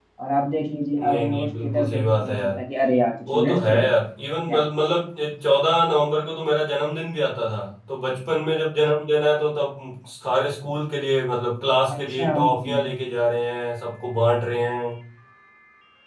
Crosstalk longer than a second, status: present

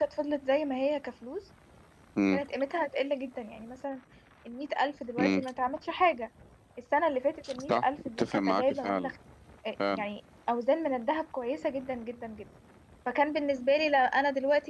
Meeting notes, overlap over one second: present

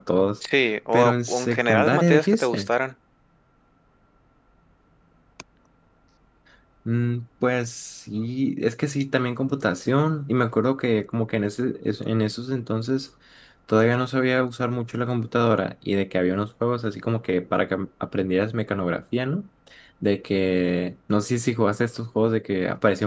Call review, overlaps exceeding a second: present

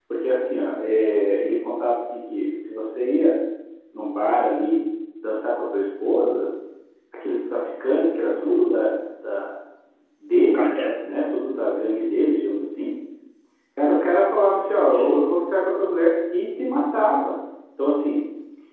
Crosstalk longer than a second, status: none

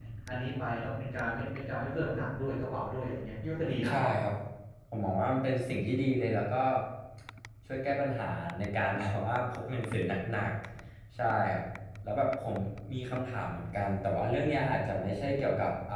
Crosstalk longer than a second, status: none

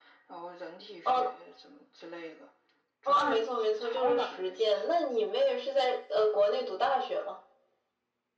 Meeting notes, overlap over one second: present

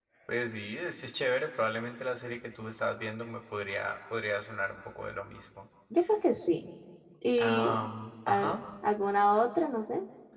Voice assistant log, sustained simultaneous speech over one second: none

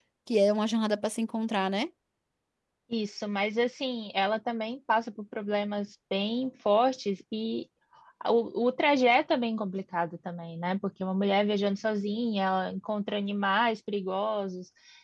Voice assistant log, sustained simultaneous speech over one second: none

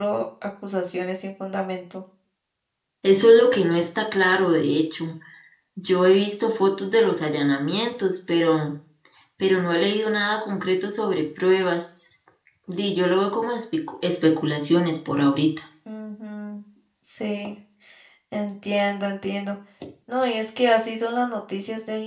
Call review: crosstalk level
none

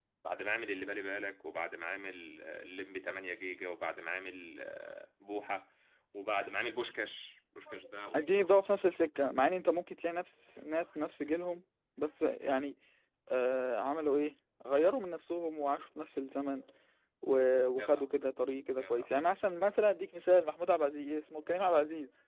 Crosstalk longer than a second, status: none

